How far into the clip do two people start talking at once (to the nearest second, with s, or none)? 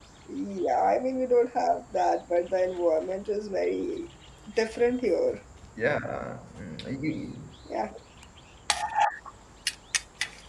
none